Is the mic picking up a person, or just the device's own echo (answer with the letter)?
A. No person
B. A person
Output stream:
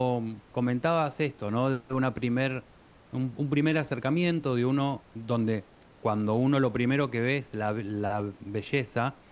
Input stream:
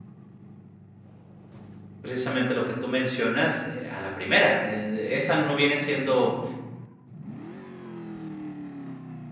B